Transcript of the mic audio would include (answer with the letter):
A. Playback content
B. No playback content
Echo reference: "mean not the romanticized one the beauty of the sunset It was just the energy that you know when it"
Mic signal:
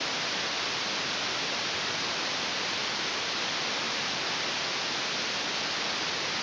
B